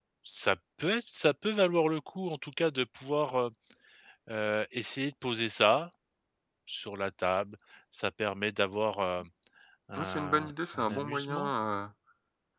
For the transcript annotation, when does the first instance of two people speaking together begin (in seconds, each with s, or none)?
10.0 s